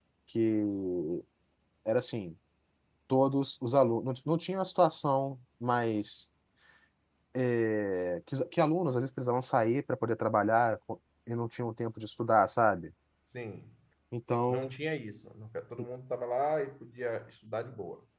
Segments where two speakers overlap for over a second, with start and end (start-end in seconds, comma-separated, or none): none